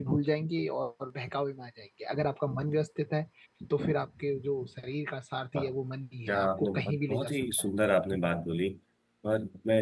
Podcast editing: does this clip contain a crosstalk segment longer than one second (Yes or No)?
Yes